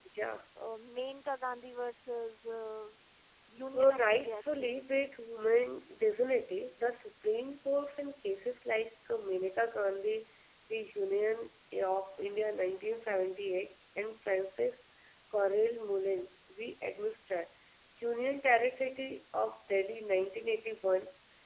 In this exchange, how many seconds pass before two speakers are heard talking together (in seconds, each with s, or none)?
3.7 s